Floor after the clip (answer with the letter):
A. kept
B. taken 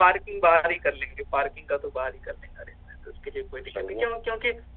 A